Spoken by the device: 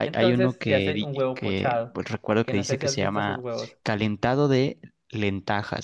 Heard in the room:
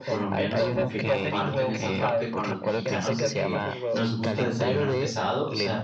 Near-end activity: present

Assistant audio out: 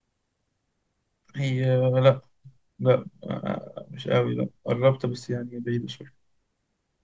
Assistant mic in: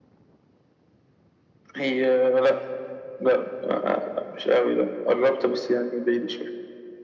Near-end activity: none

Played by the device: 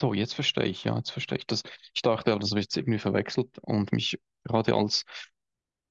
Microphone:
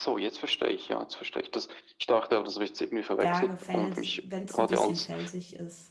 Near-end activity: present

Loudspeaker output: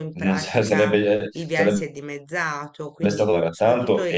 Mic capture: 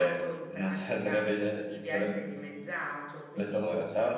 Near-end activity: none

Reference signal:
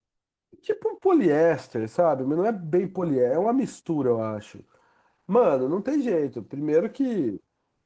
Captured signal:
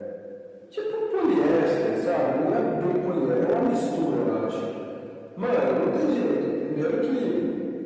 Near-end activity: none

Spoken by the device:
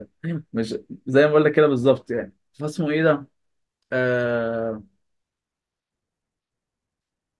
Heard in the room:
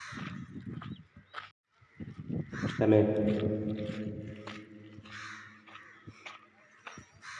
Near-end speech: present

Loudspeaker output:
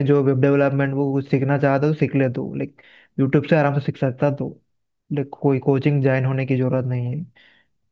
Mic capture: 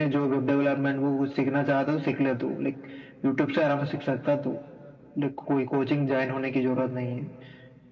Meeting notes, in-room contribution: none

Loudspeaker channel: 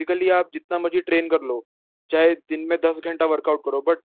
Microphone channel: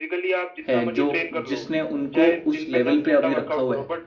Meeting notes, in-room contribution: present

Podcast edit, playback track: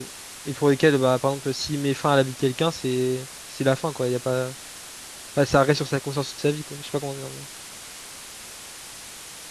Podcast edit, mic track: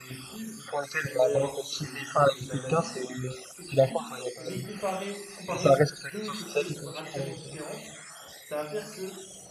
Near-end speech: present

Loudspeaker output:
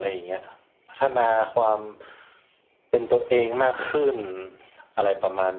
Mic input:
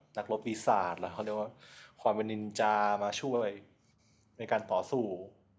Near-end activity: present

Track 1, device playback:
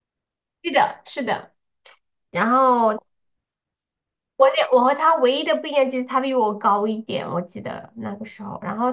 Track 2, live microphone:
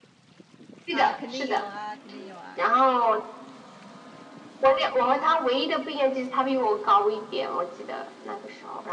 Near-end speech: present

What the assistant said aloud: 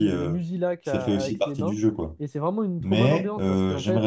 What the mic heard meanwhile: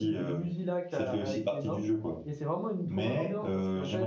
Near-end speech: none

